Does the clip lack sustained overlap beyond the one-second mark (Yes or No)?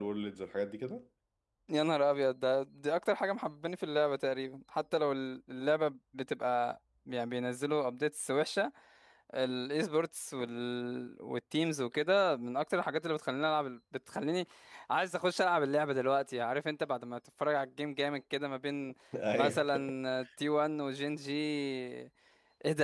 Yes